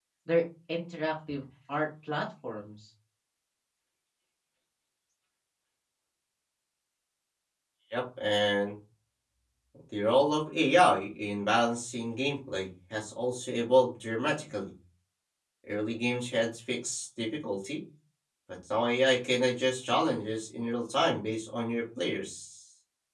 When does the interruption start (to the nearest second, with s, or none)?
none